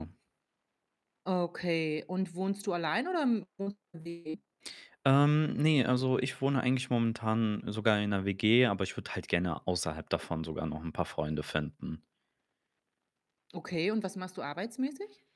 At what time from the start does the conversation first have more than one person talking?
none

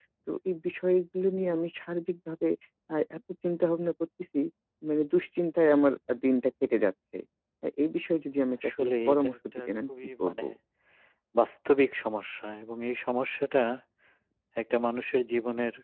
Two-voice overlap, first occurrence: 8.5 s

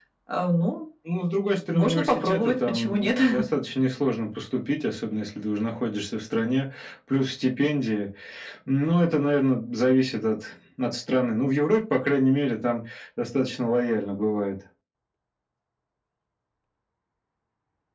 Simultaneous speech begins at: 1.7 s

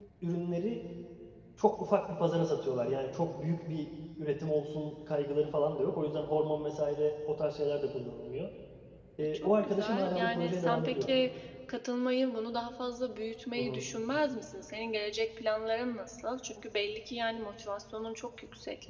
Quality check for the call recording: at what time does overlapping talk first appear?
9.3 s

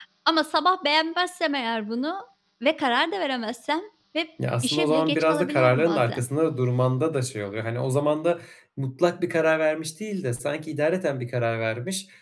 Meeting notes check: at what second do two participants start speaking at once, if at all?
4.4 s

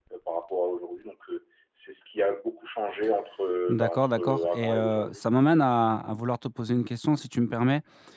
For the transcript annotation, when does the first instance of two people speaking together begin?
3.7 s

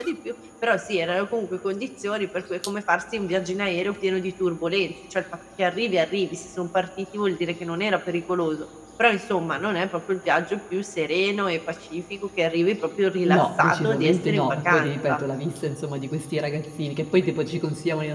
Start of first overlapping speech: 13.2 s

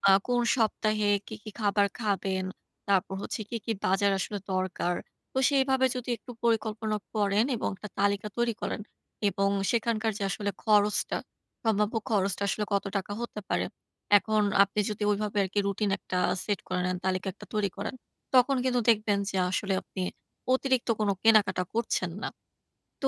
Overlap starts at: none

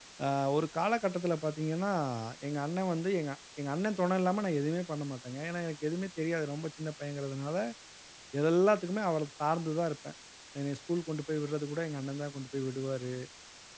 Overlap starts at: none

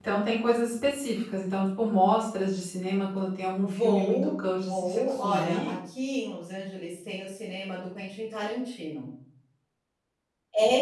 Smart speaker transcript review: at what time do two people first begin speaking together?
3.6 s

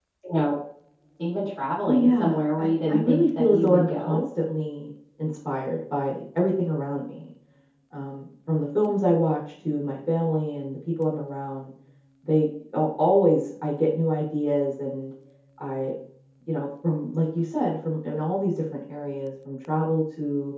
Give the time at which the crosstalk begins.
1.8 s

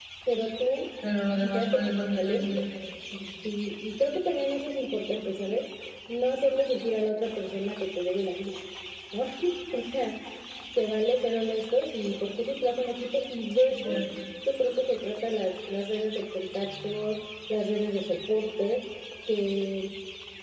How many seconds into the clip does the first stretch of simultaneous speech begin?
1.3 s

